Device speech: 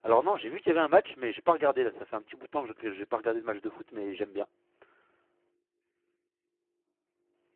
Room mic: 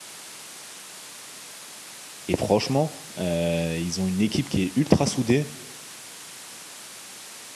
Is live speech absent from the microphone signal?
No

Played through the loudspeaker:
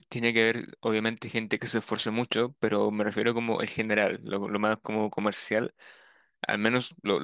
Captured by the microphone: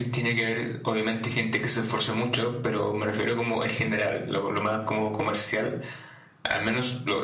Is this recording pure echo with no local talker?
Yes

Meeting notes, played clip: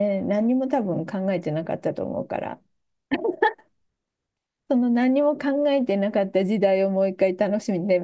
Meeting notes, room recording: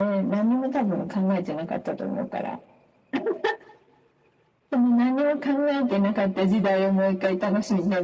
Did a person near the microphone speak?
No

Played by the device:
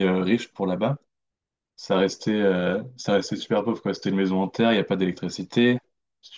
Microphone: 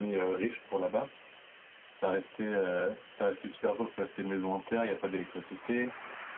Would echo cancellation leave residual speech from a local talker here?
No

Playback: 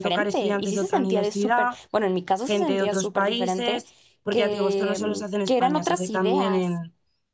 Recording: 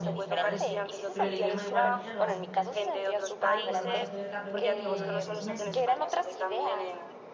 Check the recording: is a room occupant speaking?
Yes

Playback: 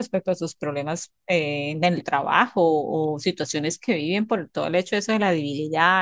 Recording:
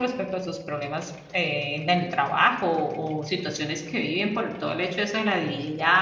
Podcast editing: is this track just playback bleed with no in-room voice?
Yes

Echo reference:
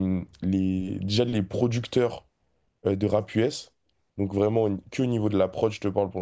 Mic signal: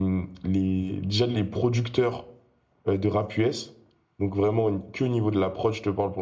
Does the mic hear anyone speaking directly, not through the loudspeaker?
No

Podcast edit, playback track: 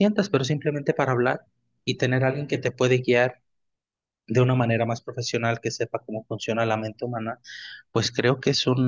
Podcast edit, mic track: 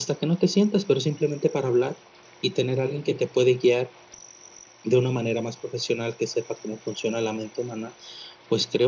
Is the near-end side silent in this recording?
Yes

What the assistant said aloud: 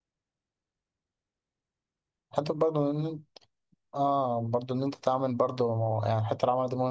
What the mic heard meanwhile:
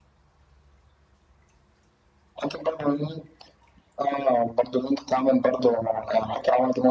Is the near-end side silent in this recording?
Yes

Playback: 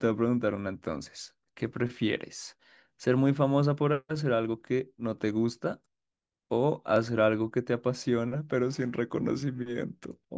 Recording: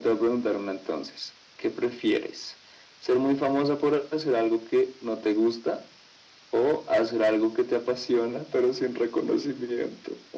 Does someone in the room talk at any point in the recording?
No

